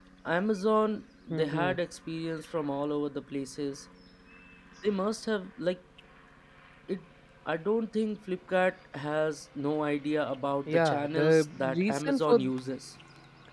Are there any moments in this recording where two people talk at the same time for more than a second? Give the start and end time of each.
10.7-12.4

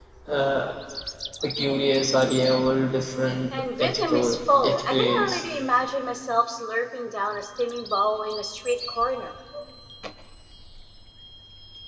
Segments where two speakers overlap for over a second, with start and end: 3.5-5.4

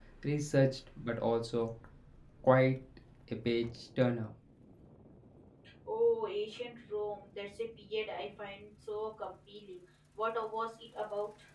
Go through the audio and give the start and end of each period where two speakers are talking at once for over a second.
none

